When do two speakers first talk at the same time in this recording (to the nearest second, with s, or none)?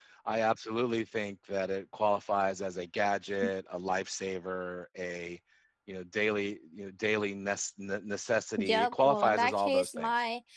9 s